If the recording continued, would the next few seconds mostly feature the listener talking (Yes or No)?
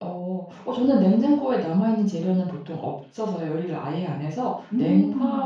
No